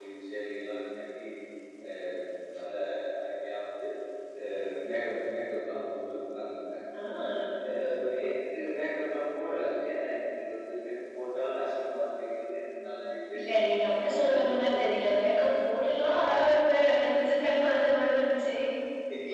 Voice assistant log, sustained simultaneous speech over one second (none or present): none